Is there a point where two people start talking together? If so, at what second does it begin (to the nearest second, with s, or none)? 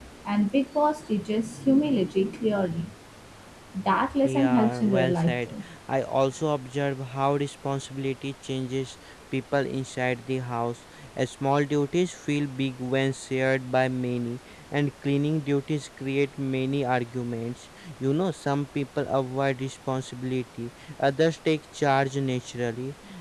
4 s